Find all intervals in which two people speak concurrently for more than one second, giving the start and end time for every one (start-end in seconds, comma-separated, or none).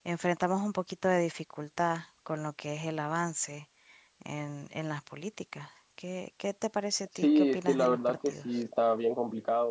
7.2-8.6